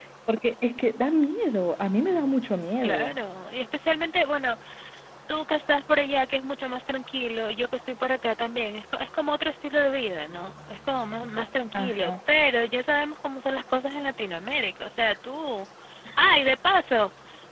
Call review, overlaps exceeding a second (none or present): none